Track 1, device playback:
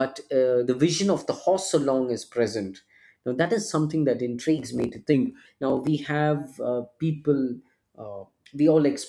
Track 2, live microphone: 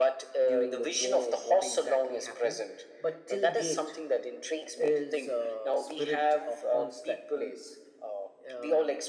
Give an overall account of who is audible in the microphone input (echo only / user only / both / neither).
both